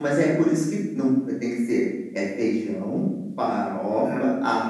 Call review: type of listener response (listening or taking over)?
listening